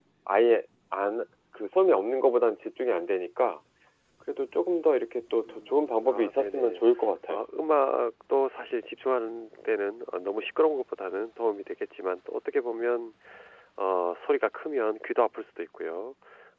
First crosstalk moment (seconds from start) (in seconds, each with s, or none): 5.4 s